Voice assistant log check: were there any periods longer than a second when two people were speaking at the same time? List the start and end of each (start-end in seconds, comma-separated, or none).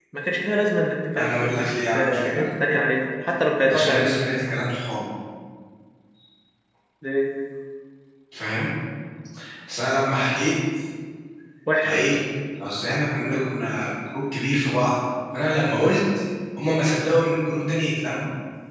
1.1-2.4